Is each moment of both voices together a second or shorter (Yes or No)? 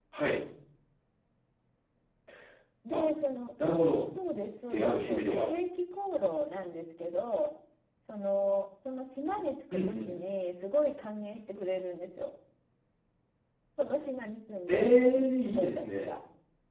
No